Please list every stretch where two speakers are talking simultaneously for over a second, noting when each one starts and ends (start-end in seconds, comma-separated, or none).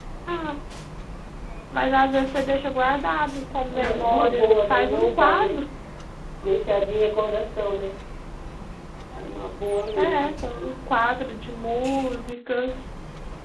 3.7-5.6